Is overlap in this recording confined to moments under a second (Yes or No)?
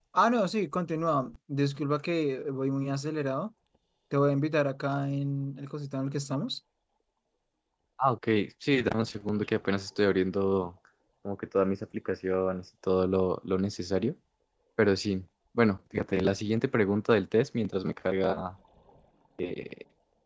Yes